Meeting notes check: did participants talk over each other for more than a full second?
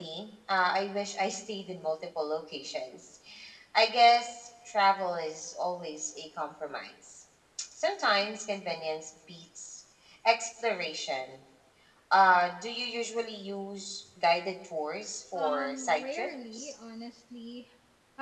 Yes, from 15.4 s

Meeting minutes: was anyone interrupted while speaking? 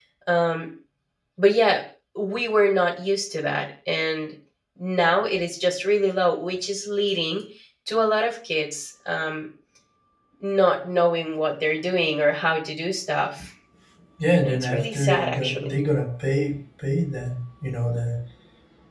Yes, from 14.4 s

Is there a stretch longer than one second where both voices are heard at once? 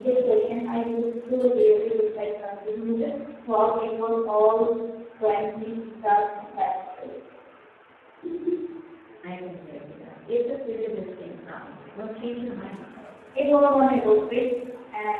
No

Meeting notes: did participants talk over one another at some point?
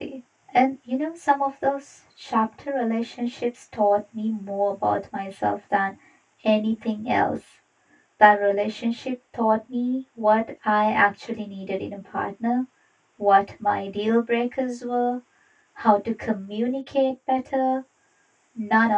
No

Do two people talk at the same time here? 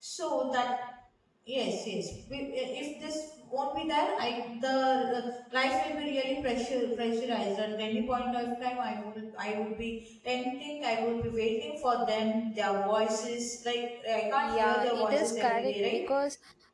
Yes, from 14.3 s

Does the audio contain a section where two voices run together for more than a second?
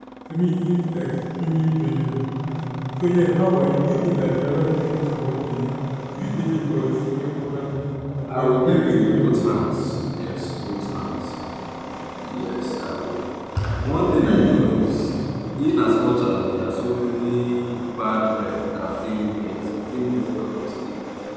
Yes, from 8.3 s

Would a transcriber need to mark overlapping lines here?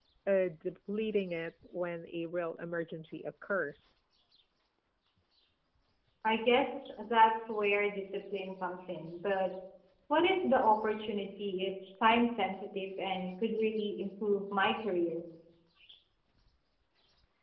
No

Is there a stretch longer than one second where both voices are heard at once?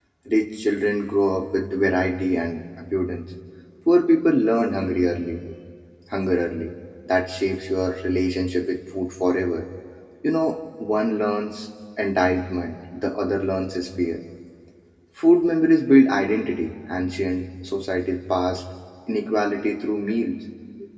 No

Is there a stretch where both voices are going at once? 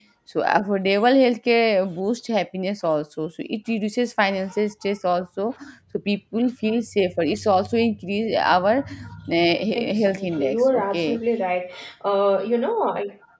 Yes, from 9.8 s

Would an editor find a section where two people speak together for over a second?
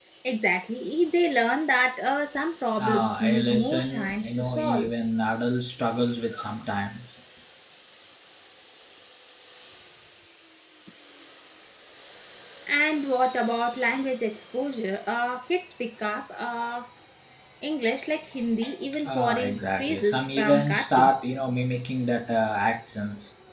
Yes, from 2.8 s

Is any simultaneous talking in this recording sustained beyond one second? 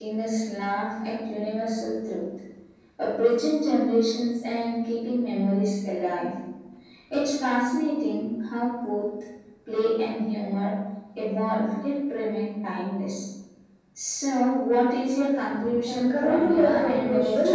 Yes, from 15.9 s

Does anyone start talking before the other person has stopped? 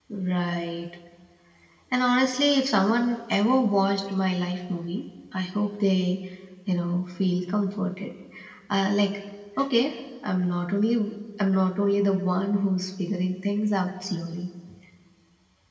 No

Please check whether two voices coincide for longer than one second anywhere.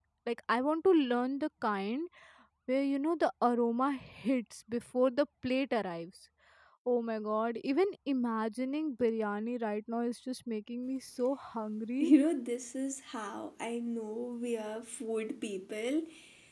No

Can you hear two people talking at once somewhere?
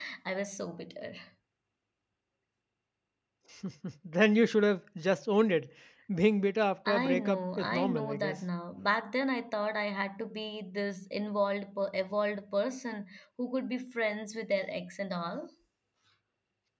Yes, from 6.9 s

